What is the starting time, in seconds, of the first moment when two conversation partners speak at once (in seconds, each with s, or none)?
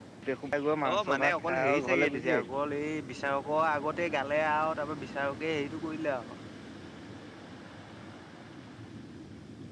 0.9 s